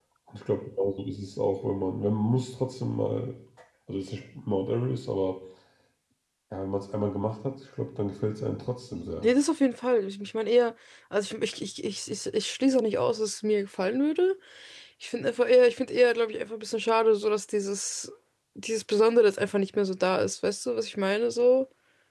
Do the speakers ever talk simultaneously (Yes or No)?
No